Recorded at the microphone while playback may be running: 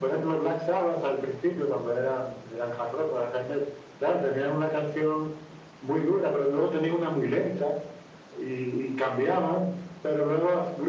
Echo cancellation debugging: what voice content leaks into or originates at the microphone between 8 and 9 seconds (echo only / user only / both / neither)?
echo only